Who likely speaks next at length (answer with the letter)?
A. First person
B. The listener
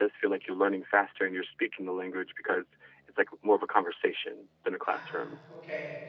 B